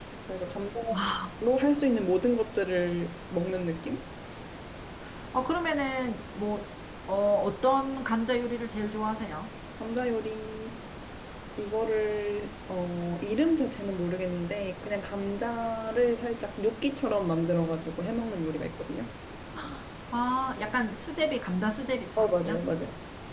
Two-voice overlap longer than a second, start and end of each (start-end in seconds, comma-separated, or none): none